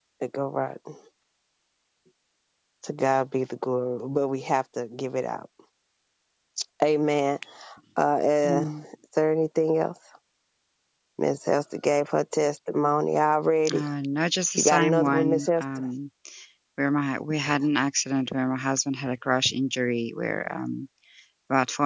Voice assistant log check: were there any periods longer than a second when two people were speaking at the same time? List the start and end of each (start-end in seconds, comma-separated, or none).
14.6-15.9